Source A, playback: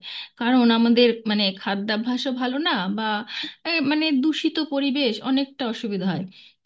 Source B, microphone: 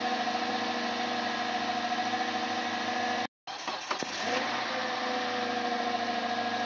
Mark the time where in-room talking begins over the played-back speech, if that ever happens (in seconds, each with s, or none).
none